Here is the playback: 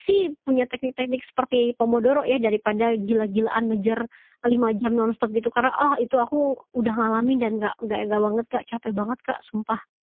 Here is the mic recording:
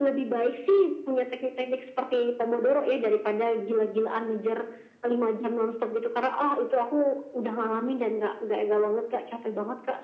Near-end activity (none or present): none